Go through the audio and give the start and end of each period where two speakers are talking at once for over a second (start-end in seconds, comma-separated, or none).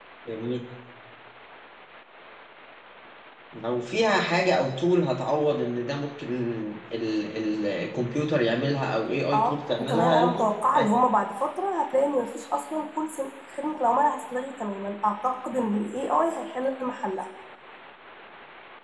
9.3-10.9